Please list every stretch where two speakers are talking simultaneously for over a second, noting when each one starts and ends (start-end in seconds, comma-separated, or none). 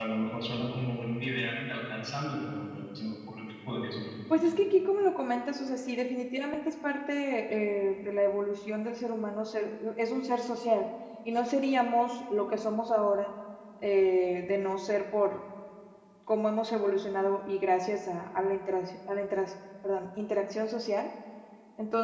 none